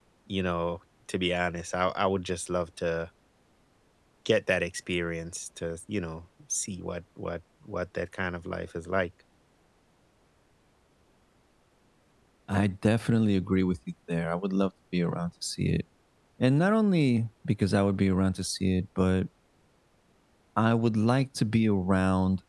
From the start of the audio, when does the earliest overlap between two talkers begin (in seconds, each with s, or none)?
none